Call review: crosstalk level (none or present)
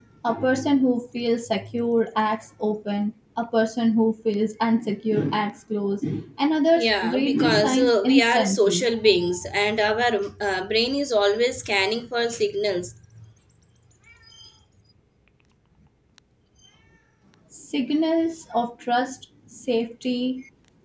present